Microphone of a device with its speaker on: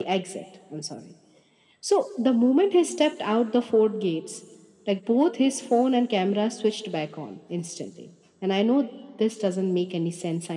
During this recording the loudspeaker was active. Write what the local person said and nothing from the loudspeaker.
none

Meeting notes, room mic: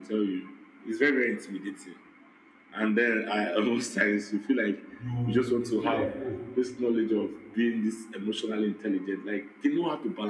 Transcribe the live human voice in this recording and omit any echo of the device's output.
you feel like oh

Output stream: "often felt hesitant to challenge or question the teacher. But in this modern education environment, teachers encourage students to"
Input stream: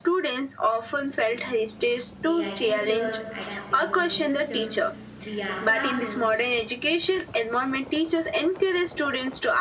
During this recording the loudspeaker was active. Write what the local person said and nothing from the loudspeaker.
AI tutors, adaptive learning systems, VR classrooms,

